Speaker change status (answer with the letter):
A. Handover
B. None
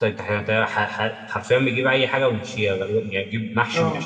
A